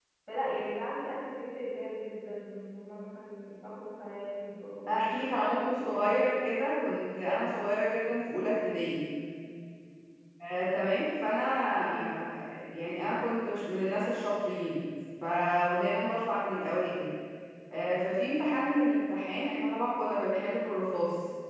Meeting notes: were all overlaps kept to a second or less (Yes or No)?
No